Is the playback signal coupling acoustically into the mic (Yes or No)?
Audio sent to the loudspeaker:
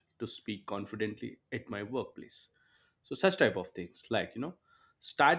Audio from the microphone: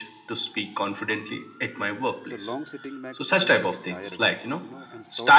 Yes